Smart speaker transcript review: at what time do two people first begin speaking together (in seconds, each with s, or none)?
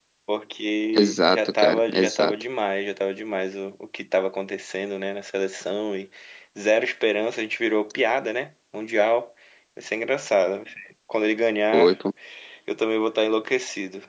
0.9 s